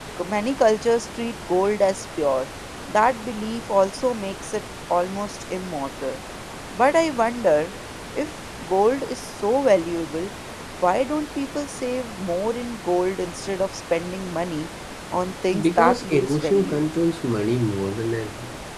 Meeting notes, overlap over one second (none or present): present